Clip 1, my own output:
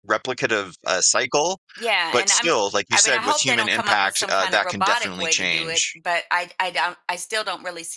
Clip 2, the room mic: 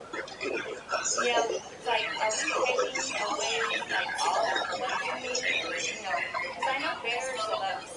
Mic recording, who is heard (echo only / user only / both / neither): both